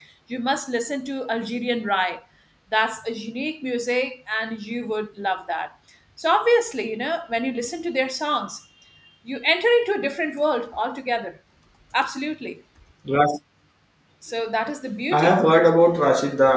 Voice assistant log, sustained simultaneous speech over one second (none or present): none